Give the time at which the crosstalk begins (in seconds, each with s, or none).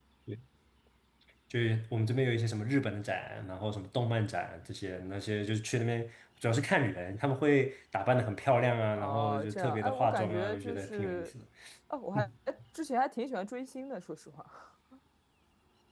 9.0 s